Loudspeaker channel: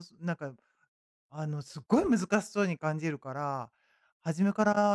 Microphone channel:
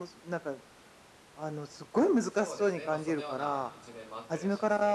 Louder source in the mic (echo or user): echo